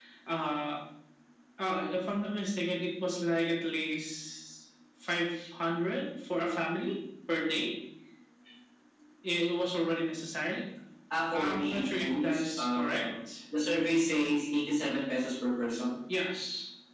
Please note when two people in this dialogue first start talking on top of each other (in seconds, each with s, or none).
11.3 s